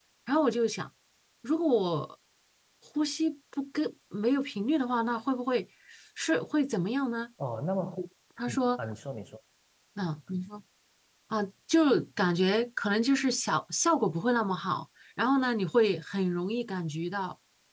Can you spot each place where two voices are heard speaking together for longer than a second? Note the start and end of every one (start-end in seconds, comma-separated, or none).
none